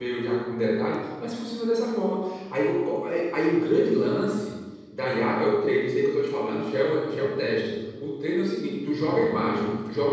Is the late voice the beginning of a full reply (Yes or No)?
No